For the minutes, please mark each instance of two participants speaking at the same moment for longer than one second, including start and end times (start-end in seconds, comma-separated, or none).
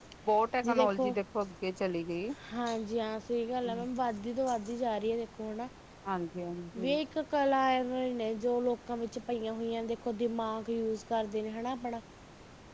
none